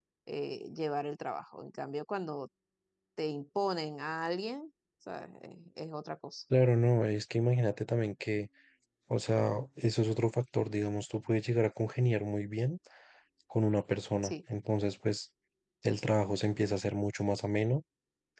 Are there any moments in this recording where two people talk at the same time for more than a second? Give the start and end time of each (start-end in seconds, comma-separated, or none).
none